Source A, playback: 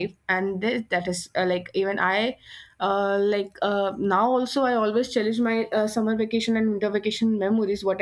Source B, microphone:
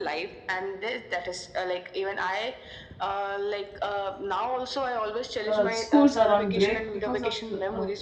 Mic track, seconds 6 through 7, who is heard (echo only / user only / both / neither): both